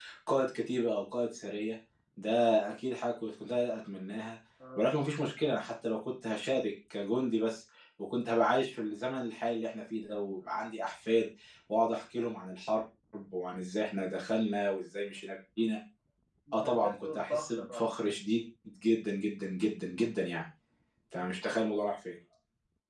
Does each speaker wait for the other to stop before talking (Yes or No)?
No